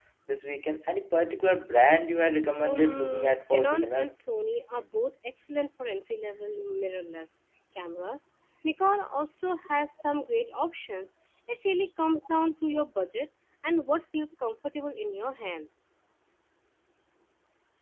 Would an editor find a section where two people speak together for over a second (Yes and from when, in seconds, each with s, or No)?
Yes, from 2.6 s